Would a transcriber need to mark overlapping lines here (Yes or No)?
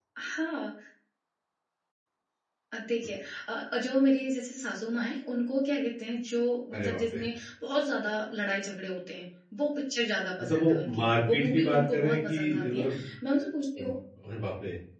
Yes